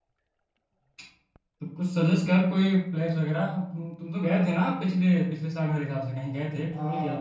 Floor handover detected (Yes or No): Yes